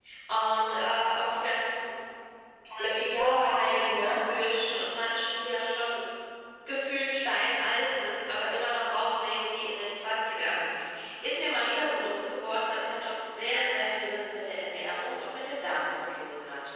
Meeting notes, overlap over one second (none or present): present